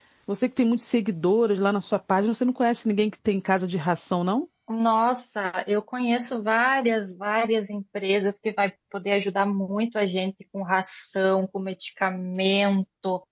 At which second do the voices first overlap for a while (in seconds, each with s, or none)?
none